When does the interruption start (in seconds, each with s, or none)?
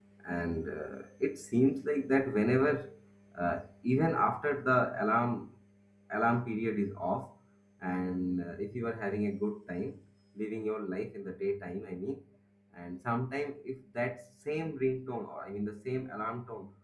none